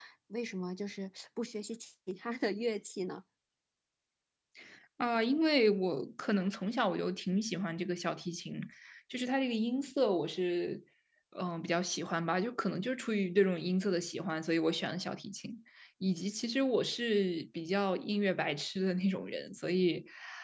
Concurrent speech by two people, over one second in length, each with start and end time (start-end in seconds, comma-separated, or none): none